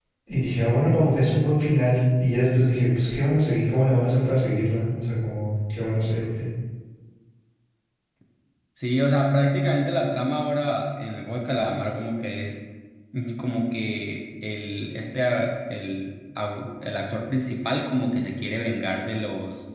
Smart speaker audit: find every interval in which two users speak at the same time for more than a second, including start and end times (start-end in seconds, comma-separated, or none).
none